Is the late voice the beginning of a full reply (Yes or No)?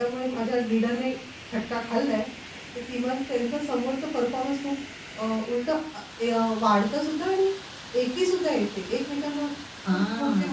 Yes